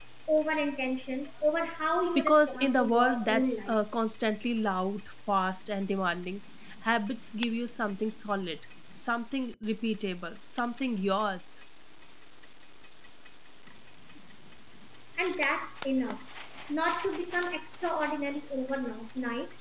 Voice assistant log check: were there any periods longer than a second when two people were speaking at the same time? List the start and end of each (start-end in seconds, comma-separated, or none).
2.1-3.8